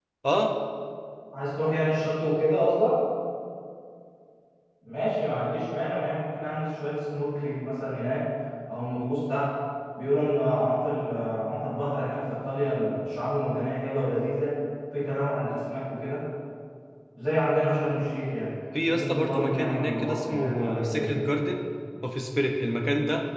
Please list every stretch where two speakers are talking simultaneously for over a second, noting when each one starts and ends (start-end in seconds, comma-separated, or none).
18.9-21.3